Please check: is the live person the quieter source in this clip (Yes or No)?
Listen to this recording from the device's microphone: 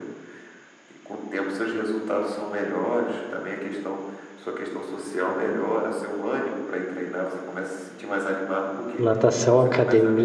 No